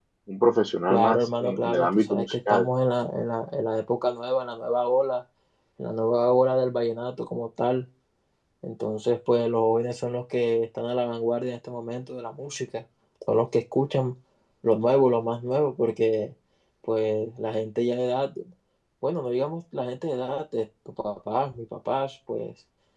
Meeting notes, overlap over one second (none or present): present